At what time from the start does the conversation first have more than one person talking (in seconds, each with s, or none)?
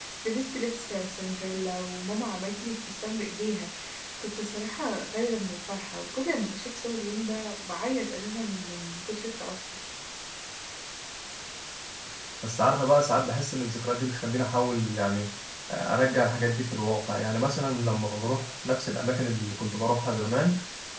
none